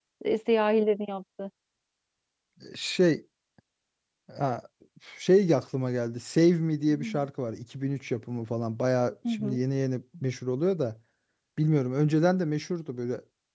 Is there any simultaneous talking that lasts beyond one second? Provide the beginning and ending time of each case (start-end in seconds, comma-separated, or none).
none